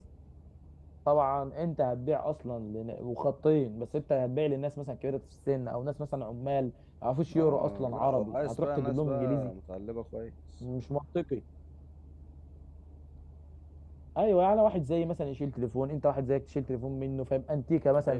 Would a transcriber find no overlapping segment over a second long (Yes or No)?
No